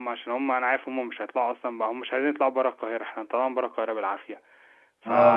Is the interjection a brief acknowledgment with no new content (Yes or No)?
No